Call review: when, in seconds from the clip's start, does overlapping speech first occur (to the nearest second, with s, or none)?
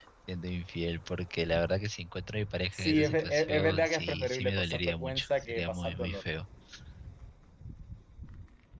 3 s